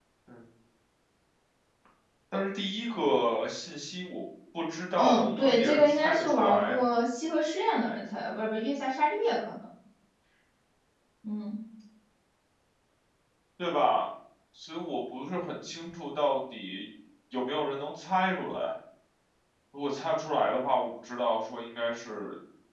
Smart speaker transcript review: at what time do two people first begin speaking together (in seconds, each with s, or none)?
5.0 s